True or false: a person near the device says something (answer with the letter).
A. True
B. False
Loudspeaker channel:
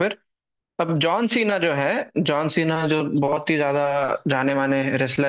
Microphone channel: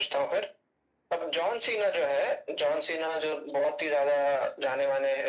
B